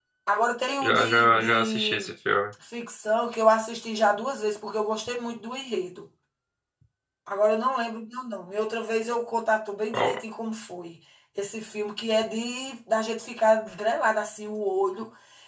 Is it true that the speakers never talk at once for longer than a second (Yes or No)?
No